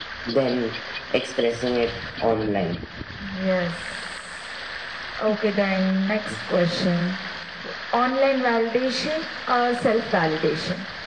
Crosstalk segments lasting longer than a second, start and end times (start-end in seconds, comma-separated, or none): none